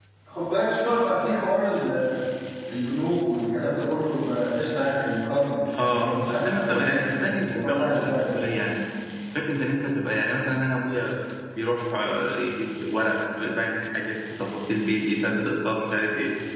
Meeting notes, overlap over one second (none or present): present